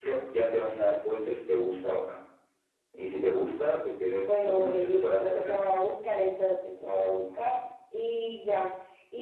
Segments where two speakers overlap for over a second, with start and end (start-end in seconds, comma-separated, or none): 4.2-5.6